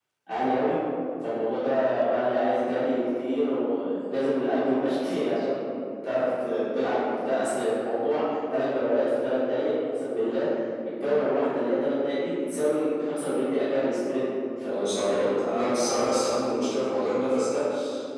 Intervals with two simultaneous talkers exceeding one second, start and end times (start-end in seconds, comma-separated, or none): 14.6-16.3